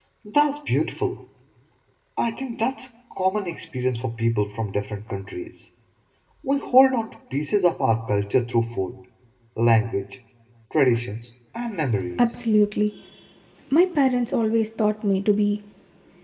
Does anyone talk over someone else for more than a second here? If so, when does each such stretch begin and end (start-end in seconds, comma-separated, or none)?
none